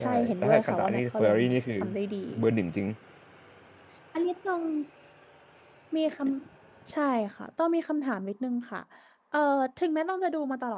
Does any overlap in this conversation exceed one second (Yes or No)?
Yes